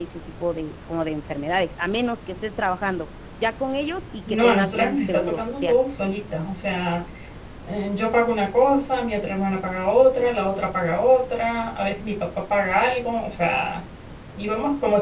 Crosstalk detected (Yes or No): Yes